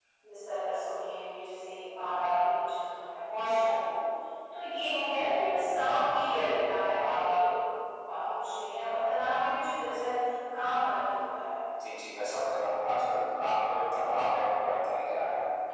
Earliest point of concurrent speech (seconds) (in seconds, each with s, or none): none